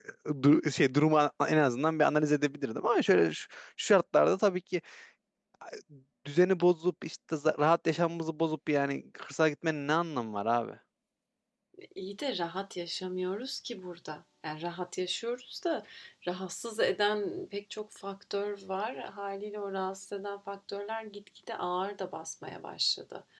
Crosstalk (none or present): none